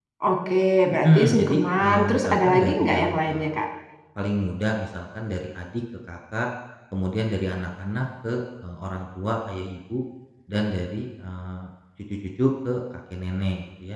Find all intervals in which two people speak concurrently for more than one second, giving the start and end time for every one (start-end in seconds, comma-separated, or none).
1.0-3.5